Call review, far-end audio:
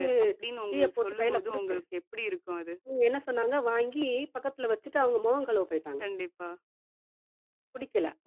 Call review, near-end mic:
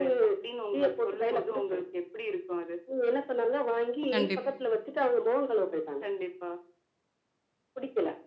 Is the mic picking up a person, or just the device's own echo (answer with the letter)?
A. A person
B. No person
A